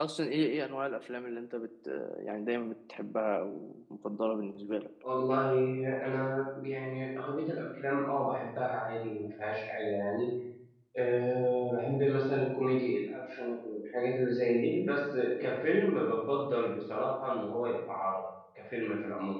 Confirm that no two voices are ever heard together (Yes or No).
Yes